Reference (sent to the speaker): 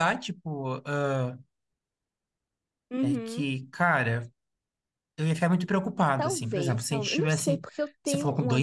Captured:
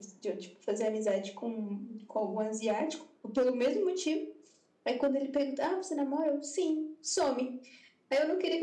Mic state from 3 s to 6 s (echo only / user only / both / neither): user only